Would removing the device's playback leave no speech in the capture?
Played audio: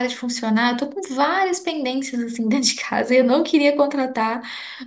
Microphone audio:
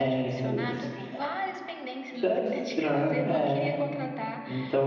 No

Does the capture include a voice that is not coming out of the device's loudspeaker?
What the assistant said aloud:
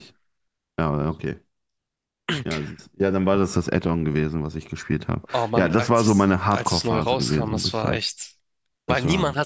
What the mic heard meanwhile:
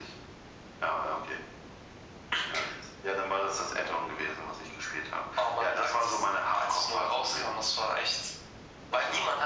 No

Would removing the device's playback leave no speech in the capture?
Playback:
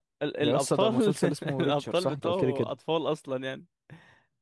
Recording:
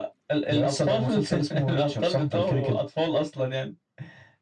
Yes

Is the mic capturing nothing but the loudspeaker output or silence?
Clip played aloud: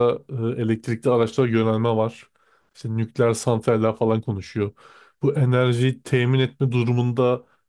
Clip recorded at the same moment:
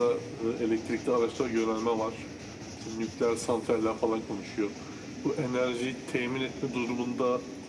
Yes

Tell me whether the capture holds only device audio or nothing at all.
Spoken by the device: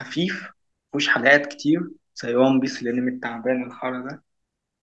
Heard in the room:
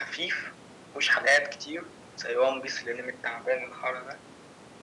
Yes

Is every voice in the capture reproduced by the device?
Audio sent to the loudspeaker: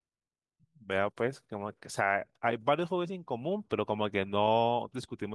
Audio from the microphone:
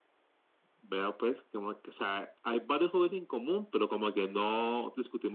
Yes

